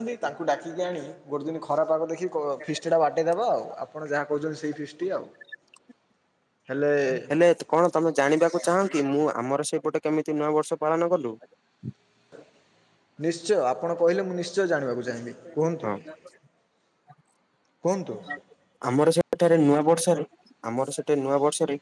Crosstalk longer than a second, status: none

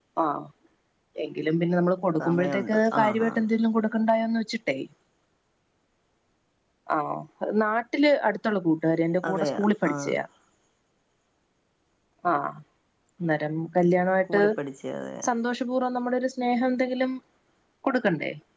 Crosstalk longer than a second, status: present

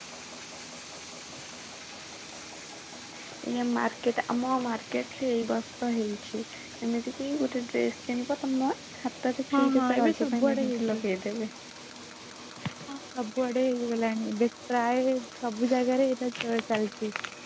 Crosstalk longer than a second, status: present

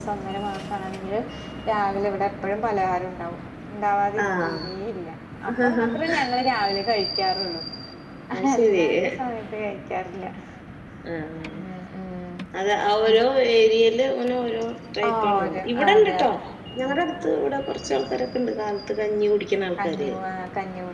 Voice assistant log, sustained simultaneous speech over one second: present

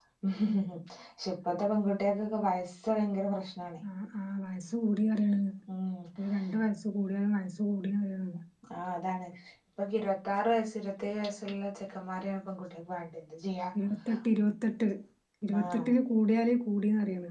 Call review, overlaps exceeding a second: none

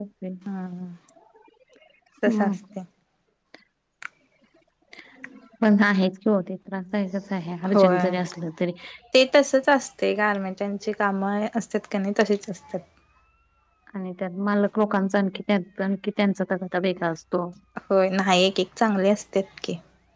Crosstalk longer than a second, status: none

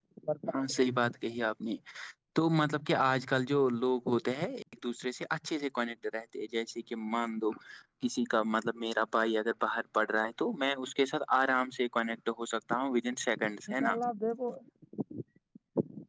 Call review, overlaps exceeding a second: none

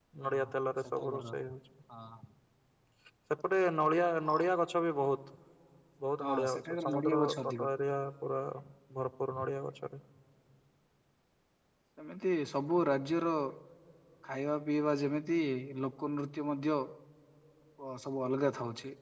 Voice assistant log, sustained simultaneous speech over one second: present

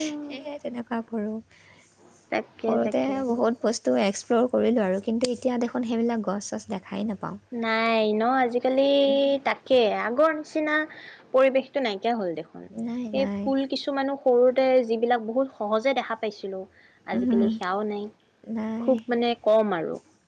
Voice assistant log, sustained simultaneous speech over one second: none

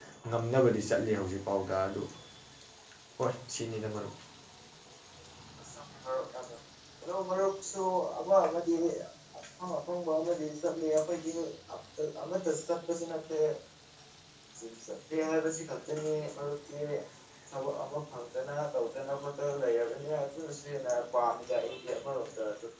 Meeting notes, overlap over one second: none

